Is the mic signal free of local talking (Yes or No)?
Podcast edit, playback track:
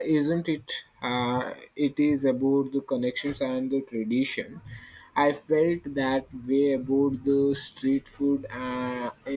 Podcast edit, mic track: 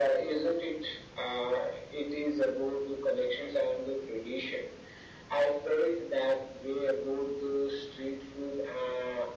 Yes